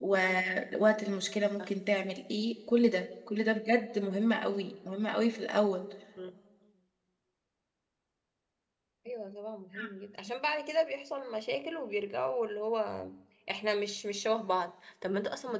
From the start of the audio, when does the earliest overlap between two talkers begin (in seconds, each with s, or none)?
none